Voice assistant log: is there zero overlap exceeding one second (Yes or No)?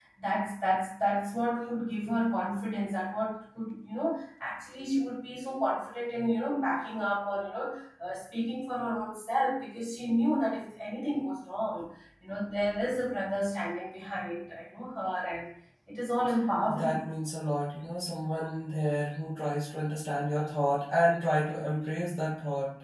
Yes